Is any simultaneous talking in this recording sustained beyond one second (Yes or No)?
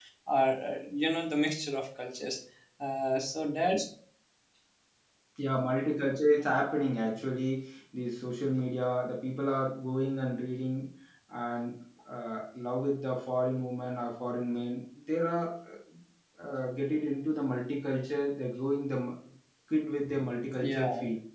No